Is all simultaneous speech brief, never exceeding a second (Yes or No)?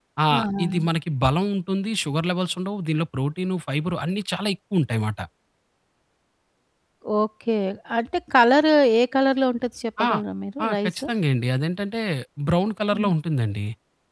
Yes